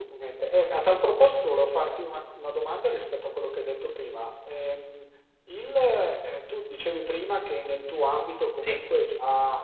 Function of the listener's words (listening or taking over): listening